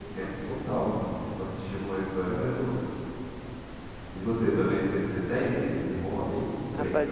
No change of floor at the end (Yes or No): No